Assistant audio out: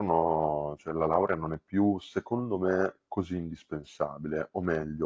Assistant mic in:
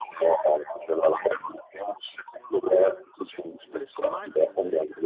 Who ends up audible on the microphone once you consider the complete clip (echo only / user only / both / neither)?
both